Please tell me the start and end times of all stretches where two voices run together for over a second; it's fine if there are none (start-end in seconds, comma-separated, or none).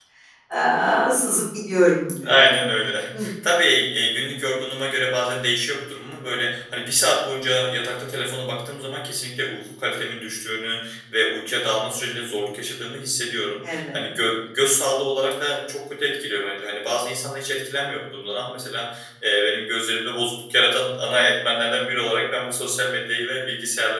none